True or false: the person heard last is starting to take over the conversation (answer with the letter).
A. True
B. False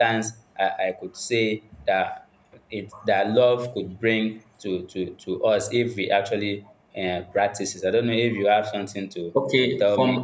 A